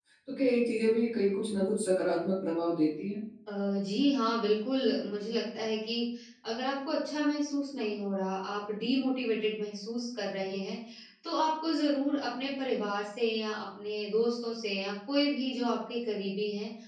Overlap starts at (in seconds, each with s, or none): none